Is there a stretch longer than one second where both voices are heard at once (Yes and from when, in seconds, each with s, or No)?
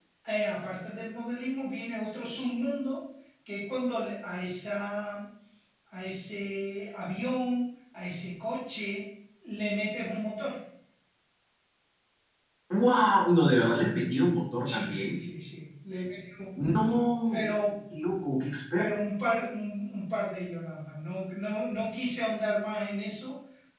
No